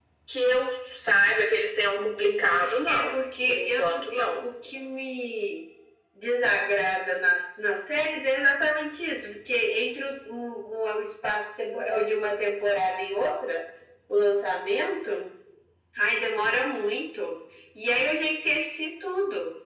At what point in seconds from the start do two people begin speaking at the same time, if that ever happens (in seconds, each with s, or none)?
2.0 s